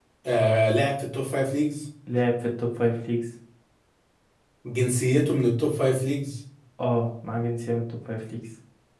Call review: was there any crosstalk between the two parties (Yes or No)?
No